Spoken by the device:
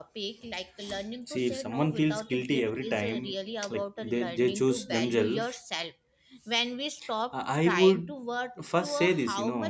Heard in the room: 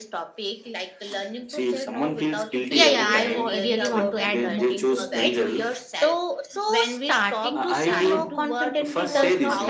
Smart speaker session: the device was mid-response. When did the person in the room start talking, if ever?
2.7 s

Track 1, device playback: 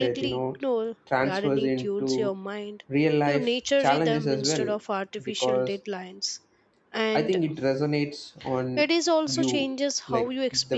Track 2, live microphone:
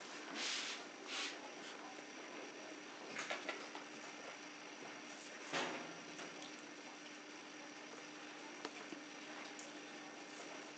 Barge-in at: none

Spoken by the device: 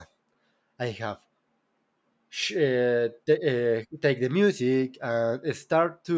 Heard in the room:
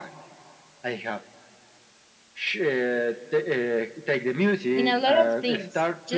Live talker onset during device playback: 4.7 s

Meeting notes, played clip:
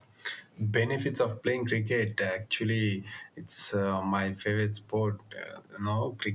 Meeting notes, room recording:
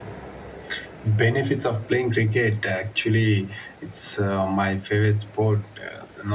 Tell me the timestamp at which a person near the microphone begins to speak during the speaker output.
none

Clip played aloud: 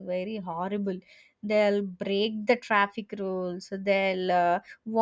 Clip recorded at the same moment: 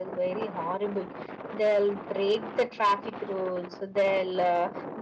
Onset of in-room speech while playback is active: none

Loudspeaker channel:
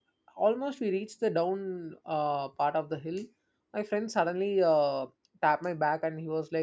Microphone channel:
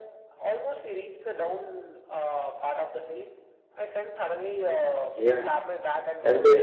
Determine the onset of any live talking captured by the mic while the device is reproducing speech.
5.1 s

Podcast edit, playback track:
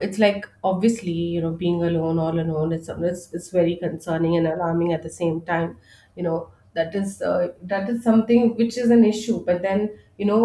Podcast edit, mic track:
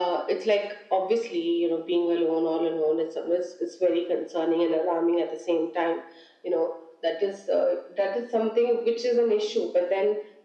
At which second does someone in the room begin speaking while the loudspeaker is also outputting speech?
none

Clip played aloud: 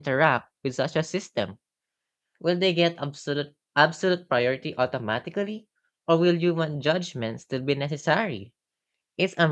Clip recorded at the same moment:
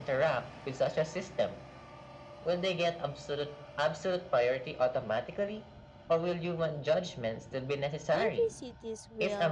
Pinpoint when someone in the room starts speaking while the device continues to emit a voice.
8.1 s

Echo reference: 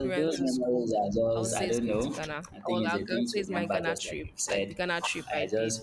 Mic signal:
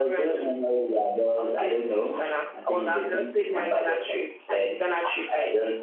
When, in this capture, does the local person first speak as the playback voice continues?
none

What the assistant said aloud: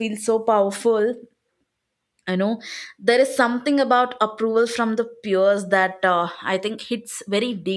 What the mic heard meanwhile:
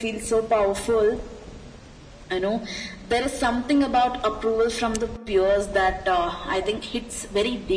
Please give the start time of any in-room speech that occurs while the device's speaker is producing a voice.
none

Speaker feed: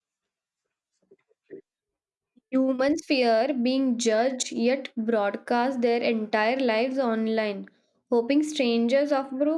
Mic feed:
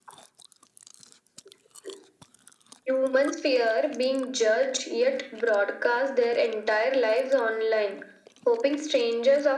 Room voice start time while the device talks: none

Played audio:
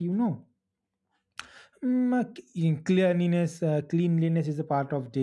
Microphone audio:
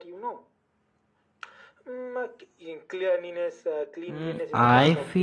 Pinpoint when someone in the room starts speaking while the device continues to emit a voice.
4.1 s

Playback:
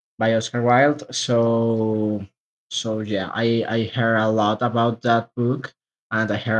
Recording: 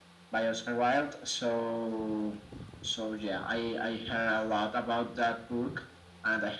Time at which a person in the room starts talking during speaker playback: none

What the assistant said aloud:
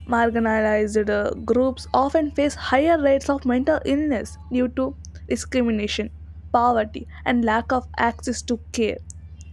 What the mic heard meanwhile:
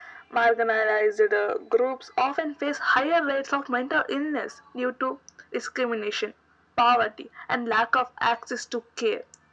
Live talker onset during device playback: none

